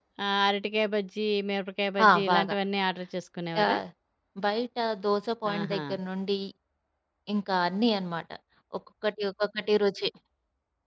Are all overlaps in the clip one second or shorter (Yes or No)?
Yes